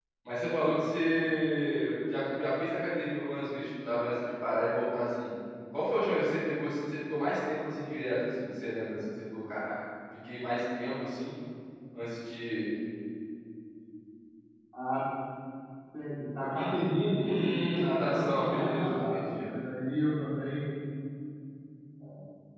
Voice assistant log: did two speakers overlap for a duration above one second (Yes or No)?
Yes